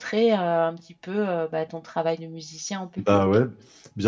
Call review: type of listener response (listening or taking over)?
taking over